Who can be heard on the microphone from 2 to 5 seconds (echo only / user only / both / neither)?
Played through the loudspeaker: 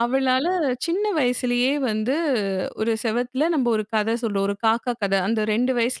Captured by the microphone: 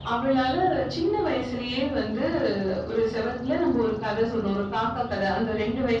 echo only